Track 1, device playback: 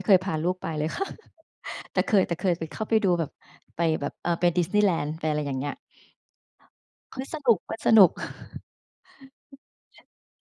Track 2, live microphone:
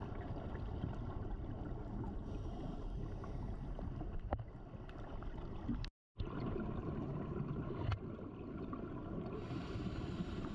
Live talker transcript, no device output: none

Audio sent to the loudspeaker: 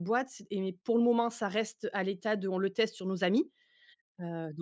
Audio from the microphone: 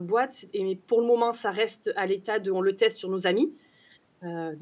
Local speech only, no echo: none

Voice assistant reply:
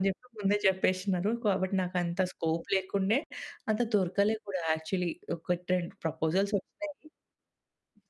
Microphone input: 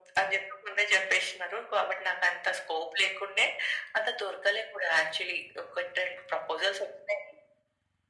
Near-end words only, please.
none

